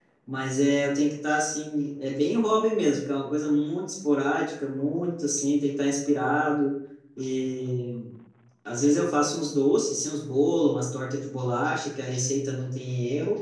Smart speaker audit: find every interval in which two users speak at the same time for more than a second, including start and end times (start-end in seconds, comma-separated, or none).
none